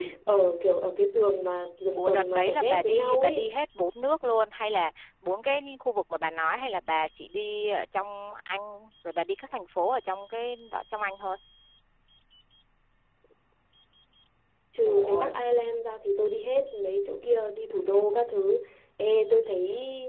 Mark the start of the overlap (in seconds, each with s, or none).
1.9 s